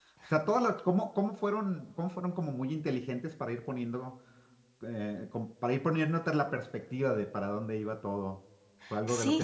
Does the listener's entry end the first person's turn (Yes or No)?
No